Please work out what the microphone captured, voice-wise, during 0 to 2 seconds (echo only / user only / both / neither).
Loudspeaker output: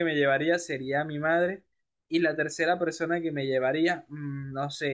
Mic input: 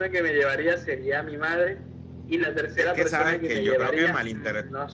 echo only